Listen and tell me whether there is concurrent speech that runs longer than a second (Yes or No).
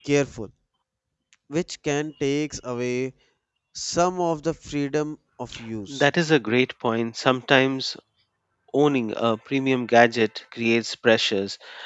No